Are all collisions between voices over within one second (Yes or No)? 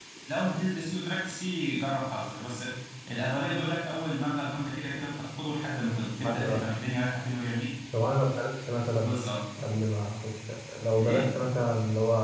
Yes